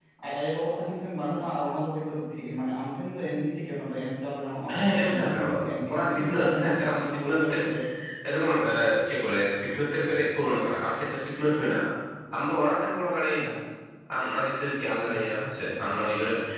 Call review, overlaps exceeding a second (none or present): present